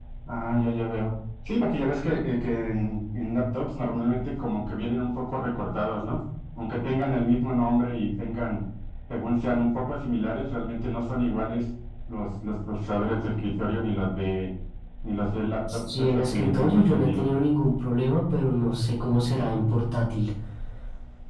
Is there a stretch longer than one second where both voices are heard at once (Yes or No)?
Yes